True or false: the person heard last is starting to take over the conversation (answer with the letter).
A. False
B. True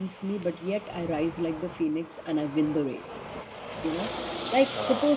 A